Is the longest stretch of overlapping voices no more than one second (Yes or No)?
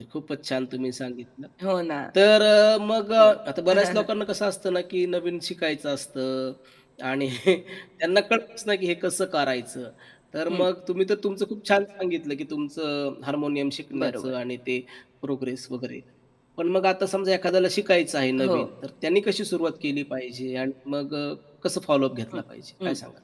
Yes